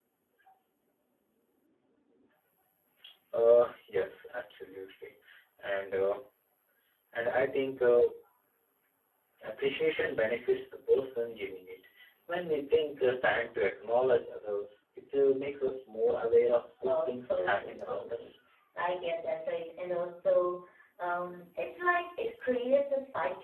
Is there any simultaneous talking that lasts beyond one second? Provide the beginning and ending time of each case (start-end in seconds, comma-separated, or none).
16.8-18.3